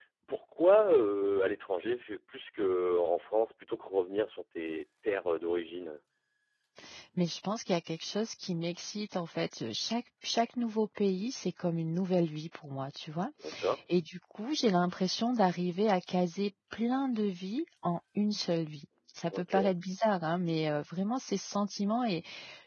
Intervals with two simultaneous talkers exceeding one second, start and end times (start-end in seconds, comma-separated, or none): none